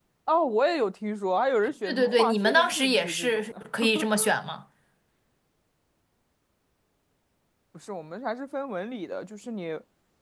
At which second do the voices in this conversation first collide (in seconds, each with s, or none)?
1.8 s